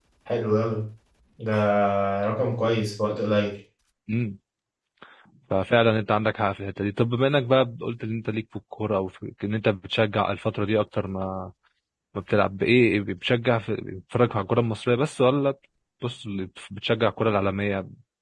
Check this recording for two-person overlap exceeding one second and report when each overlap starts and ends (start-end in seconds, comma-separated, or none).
none